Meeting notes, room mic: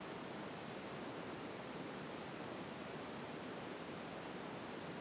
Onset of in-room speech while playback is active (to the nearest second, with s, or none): none